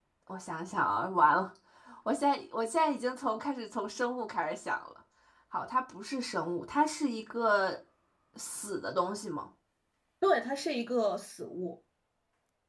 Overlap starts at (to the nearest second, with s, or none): none